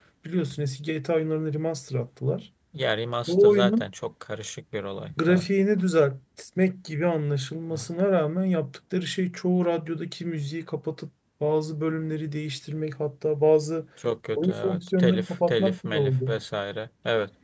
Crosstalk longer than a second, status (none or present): present